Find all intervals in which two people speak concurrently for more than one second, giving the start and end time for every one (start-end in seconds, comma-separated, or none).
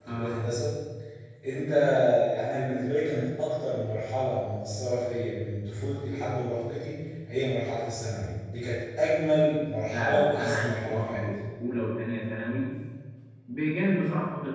9.9-11.2